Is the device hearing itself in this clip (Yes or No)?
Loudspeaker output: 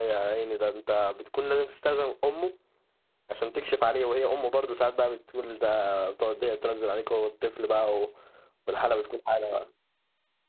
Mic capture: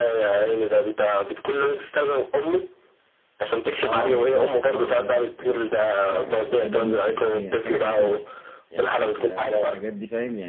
Yes